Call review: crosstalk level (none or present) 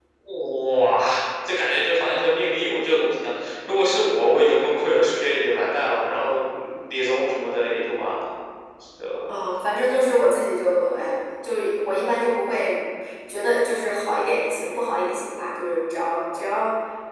none